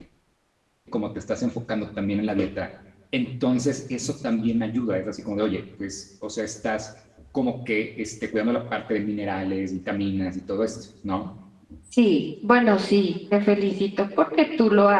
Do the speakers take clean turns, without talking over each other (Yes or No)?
Yes